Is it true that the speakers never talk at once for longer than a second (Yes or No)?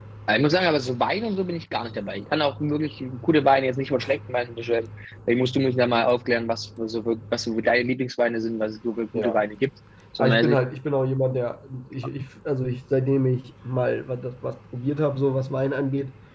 Yes